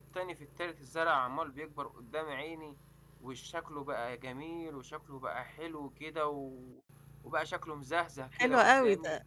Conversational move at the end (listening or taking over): taking over